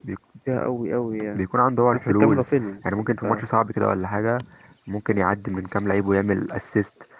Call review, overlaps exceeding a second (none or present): none